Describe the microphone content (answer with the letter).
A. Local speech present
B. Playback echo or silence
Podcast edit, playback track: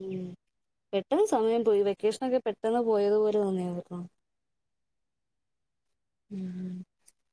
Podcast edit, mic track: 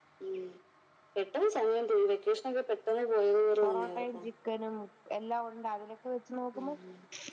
A